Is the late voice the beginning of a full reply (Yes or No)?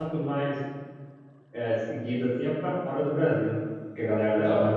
Yes